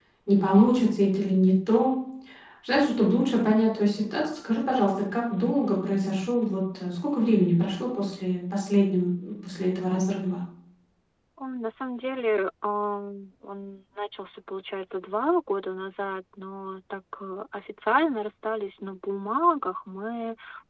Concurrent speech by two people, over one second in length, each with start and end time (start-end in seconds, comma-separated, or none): none